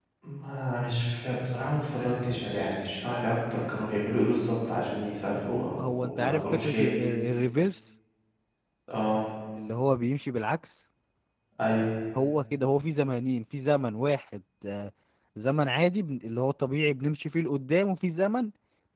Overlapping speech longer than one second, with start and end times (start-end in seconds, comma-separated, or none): 5.5-7.2